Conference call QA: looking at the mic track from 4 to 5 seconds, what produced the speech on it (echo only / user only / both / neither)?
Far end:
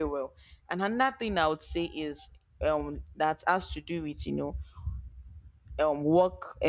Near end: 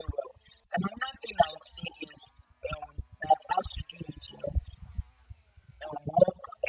echo only